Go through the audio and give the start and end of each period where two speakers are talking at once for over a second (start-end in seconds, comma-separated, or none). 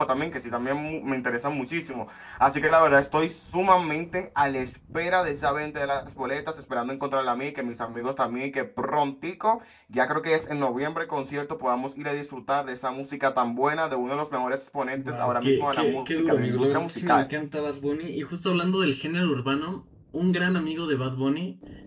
15.0-17.2